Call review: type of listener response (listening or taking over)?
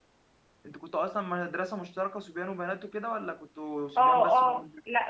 taking over